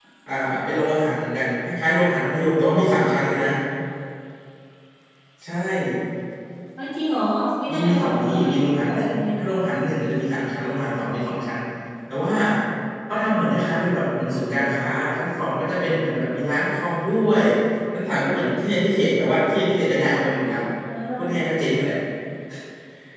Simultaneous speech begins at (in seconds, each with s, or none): 7.7 s